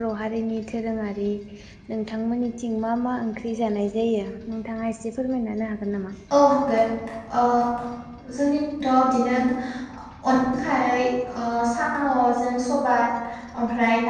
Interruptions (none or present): none